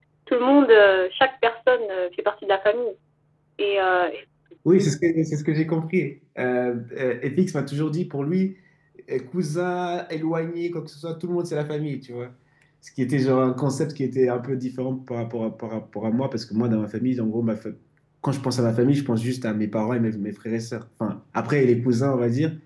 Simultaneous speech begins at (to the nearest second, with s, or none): none